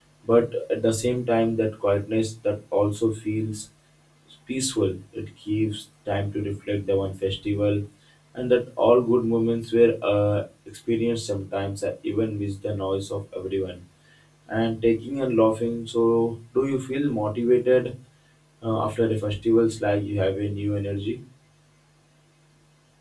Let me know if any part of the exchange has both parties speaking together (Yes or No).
No